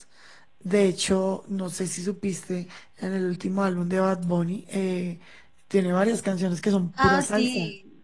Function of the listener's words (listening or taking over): taking over